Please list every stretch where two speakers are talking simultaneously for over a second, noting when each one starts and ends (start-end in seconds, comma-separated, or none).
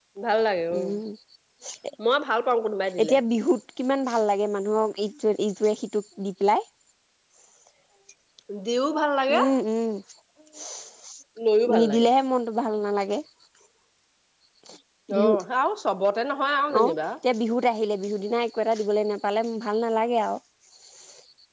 none